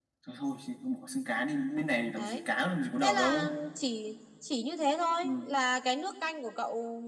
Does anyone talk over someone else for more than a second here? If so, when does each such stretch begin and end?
none

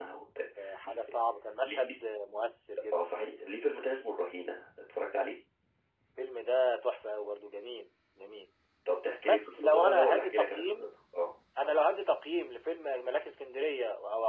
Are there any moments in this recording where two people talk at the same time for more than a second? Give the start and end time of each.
9.2-10.9

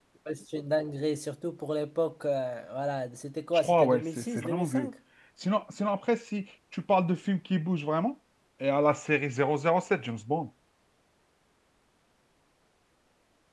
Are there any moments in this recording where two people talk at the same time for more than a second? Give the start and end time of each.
3.5-4.9

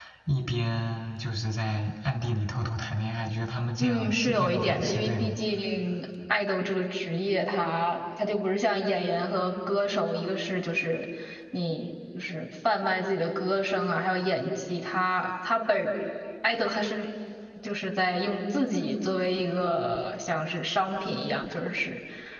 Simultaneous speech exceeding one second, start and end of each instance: 3.8-5.3

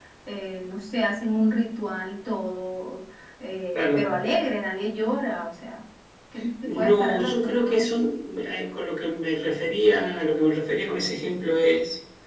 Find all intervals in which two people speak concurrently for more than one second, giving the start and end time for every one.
6.6-7.8

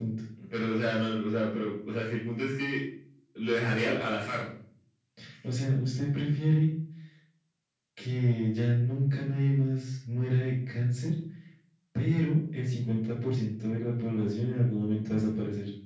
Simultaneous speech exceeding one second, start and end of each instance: none

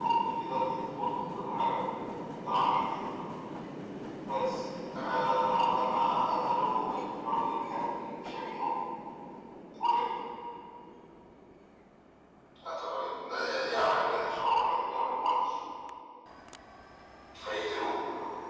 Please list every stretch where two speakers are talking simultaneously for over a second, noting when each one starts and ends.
none

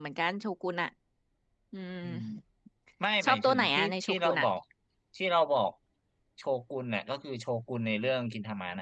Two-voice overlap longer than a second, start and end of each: 3.2-4.5

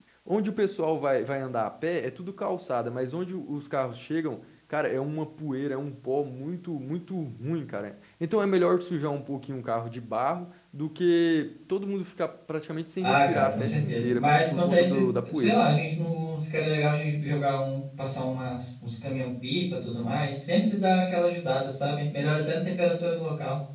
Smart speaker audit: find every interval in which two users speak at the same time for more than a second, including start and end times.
13.0-15.6

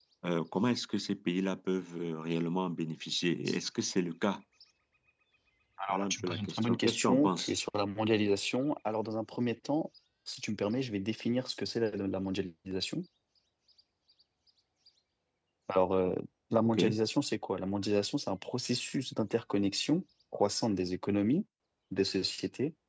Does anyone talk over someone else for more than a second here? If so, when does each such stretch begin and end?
5.9-7.5

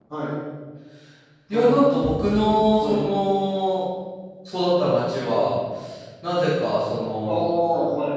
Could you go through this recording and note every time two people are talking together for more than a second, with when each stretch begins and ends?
none

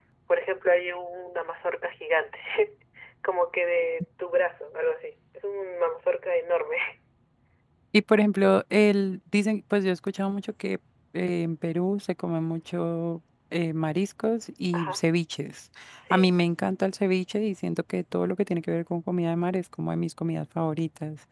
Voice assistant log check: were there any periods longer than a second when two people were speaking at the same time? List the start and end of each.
none

